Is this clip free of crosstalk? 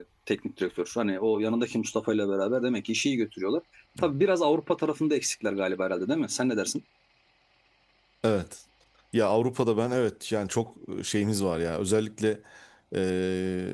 Yes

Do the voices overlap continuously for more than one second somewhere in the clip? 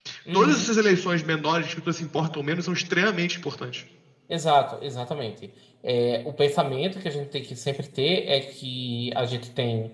No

